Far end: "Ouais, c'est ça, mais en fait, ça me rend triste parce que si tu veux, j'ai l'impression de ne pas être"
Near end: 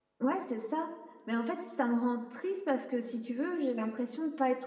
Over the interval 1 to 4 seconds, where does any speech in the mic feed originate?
echo only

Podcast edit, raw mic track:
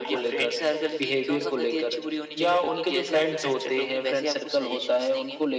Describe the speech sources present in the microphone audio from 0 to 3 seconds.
echo only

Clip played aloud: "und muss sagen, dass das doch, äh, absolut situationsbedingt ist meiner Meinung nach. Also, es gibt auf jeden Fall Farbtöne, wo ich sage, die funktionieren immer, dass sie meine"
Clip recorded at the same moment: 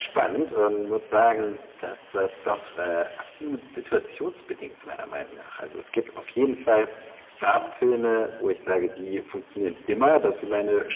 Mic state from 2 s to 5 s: echo only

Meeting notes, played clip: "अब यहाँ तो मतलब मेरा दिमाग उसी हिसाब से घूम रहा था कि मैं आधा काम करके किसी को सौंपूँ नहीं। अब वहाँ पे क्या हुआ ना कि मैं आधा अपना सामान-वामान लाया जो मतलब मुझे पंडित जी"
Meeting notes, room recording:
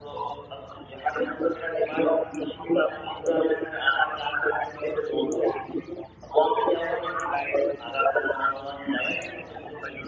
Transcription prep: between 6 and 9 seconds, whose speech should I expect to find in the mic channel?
echo only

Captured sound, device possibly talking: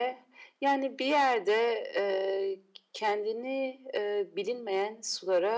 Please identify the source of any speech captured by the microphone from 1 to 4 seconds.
echo only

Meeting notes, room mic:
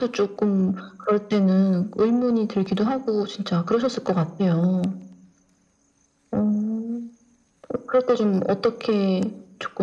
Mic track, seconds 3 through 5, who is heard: echo only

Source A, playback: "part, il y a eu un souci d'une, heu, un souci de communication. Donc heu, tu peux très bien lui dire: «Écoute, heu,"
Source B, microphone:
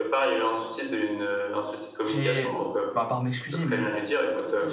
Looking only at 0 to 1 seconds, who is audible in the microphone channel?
echo only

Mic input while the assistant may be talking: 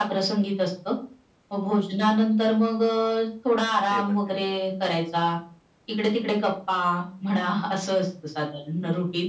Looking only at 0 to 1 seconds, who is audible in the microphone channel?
echo only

